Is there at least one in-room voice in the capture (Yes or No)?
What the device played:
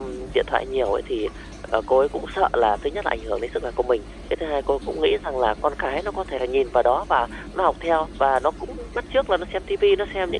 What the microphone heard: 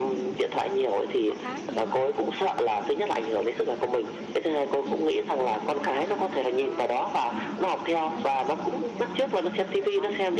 Yes